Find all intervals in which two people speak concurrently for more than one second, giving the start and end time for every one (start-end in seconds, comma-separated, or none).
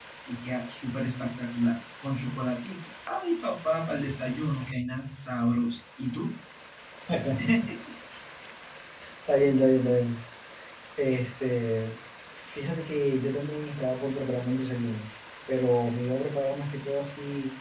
none